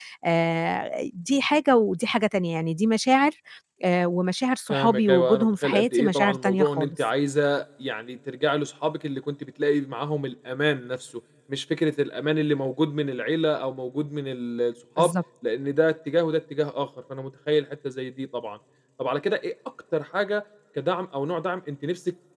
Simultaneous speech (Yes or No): Yes